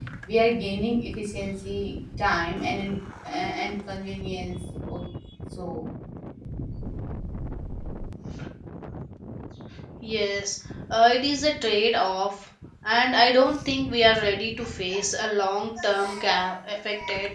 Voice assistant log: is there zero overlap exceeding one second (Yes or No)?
Yes